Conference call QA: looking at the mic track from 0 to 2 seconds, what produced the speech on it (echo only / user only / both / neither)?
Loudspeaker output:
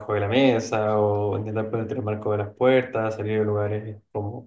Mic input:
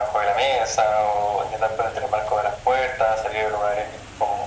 echo only